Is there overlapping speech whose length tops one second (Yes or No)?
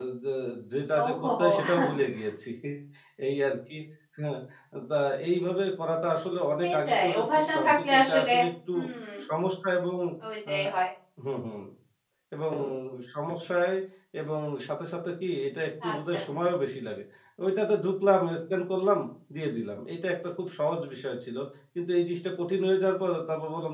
Yes